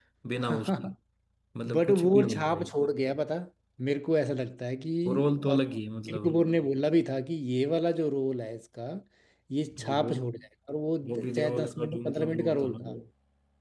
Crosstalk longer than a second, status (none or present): present